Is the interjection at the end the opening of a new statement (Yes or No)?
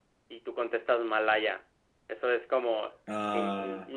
No